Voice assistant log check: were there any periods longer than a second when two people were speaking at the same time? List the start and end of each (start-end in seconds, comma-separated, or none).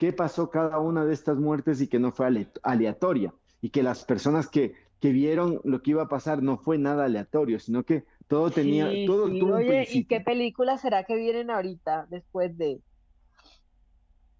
8.5-10.2